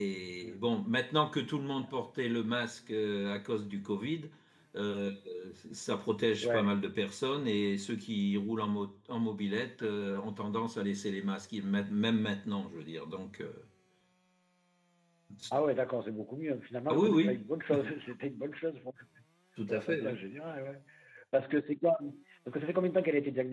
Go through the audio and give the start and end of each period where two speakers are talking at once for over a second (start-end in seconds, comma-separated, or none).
none